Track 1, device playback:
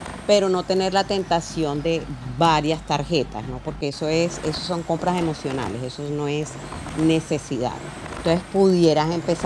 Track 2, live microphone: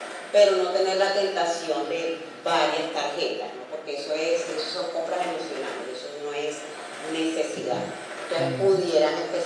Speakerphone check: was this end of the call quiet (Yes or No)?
No